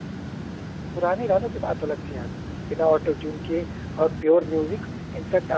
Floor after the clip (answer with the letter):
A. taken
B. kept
B